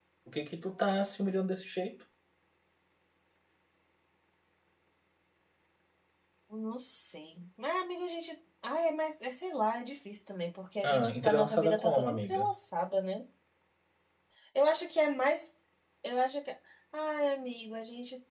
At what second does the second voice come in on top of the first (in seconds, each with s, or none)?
10.8 s